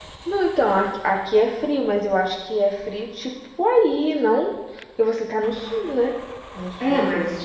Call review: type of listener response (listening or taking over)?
taking over